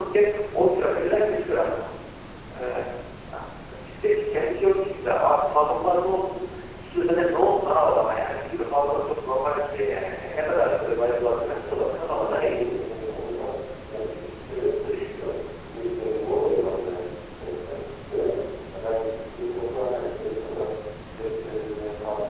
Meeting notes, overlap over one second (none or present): present